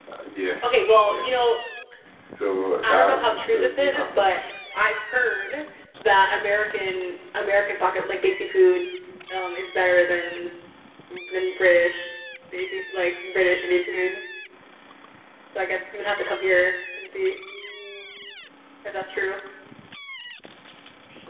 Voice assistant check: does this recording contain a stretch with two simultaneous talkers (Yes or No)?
Yes